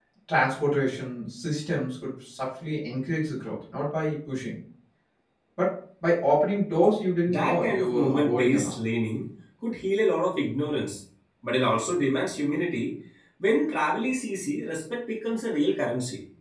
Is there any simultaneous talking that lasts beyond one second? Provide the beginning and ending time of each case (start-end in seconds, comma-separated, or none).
7.3-8.7